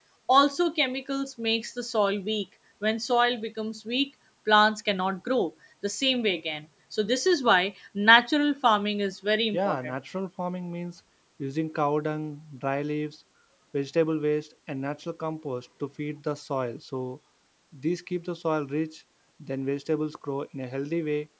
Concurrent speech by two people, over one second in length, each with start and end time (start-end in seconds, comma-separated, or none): none